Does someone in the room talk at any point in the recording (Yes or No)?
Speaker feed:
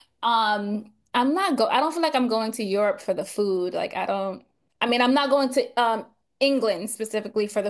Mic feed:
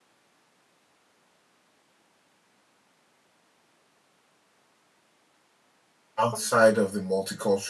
Yes